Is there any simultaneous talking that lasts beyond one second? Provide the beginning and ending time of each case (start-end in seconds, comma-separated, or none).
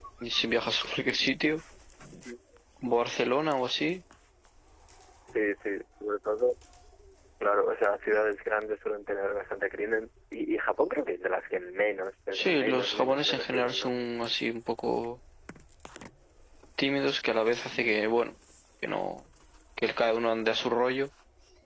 12.3-13.9